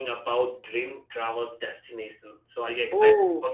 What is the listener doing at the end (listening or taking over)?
taking over